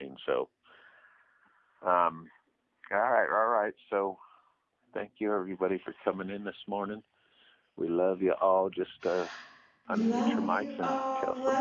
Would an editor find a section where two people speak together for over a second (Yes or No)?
Yes